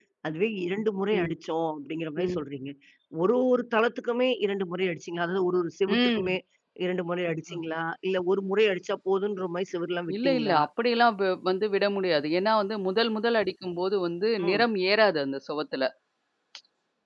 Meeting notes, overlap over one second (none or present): none